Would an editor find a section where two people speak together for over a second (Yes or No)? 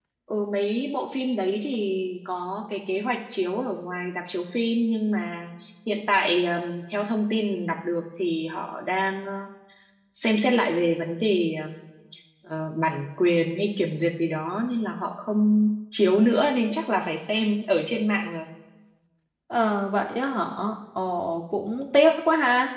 No